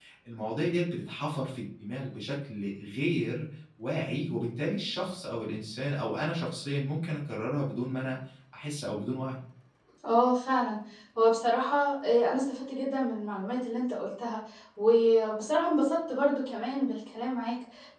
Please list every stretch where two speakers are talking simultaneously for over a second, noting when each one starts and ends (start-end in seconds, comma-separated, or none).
none